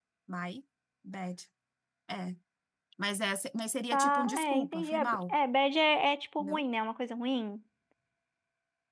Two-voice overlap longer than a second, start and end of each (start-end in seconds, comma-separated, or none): 3.9-5.4